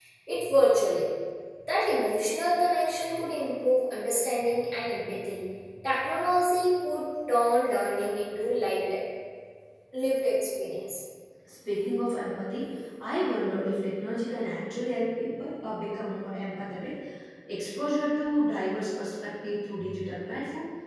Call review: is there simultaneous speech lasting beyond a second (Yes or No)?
No